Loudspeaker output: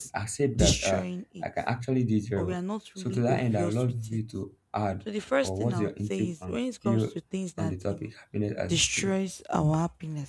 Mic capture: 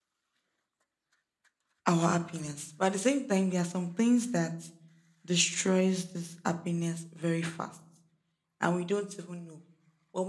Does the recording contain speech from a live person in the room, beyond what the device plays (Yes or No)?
Yes